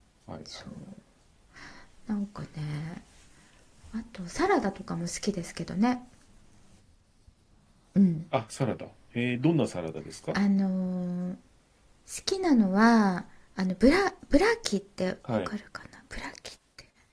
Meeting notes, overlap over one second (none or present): none